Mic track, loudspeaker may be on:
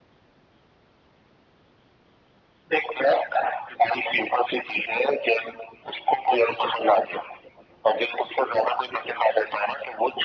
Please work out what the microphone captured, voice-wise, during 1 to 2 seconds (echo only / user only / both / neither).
neither